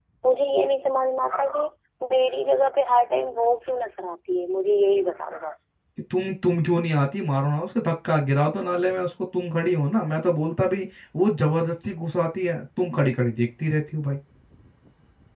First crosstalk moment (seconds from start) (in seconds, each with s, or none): none